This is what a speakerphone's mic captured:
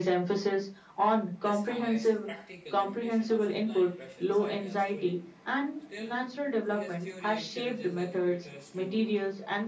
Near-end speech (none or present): present